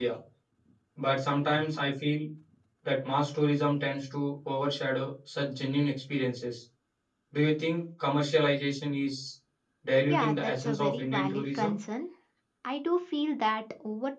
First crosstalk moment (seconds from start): 10.0 s

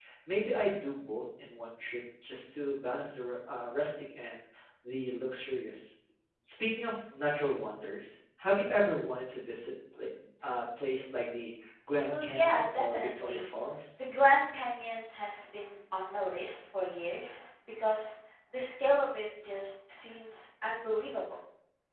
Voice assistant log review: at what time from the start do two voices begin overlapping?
12.1 s

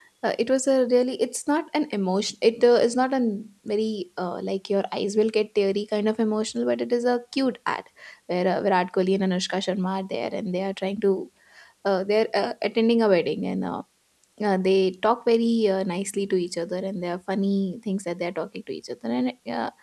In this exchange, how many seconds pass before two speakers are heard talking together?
none

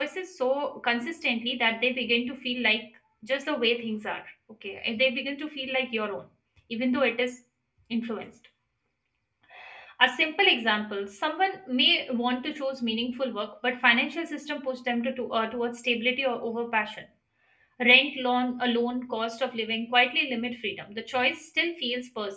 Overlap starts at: none

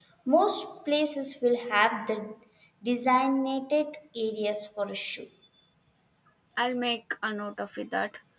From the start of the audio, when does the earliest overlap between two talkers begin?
none

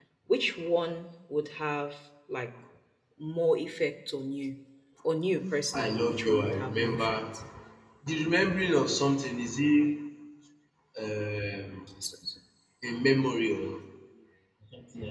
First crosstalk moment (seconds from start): 5.7 s

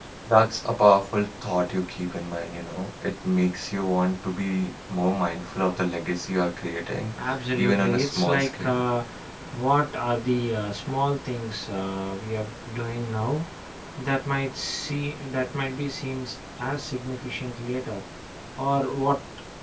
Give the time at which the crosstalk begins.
7.5 s

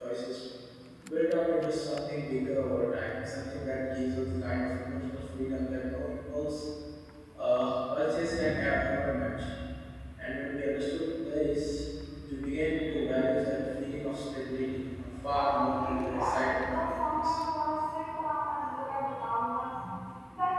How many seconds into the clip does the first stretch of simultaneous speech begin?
15.3 s

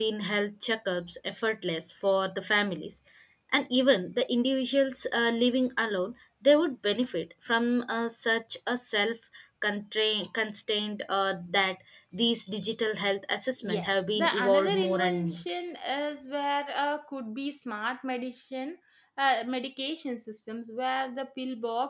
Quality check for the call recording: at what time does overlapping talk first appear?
13.6 s

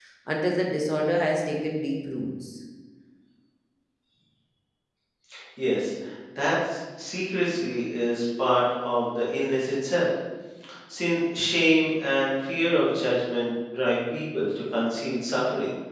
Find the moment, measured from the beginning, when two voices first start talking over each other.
none

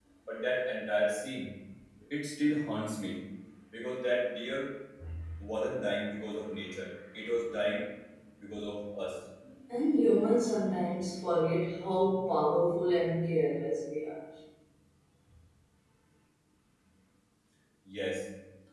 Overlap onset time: none

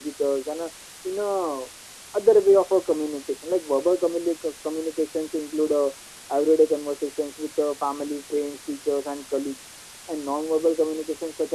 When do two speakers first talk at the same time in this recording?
none

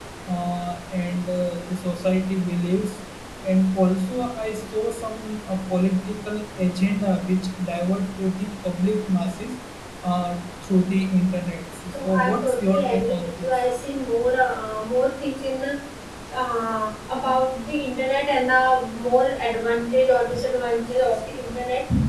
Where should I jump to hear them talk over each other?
11.9 s

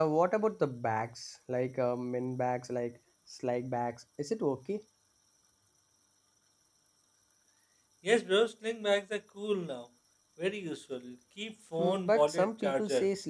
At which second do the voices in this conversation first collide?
11.8 s

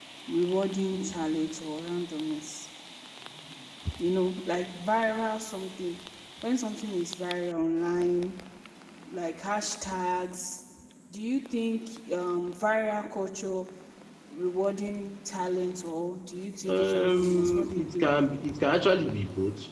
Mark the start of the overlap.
16.7 s

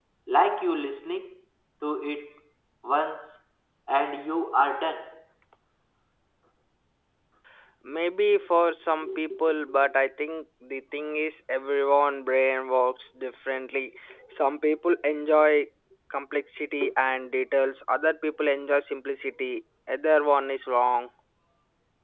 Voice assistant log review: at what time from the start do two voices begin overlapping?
none

